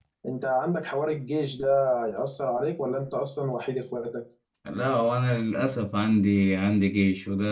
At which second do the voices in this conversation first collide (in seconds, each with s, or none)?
none